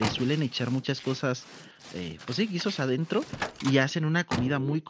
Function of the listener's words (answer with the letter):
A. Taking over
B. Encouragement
B